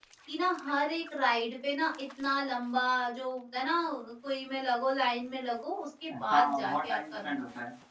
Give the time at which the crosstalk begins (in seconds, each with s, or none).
6.1 s